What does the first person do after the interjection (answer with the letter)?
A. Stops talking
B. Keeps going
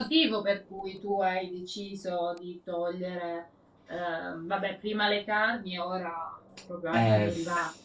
A